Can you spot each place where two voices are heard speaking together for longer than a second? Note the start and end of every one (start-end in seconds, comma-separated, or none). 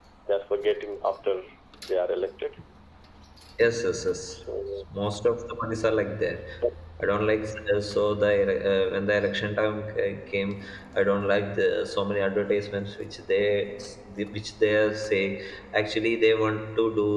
none